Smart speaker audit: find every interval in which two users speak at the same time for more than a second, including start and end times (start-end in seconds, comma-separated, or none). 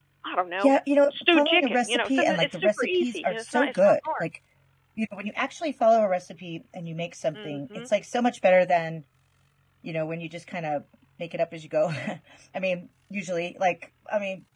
1.1-4.2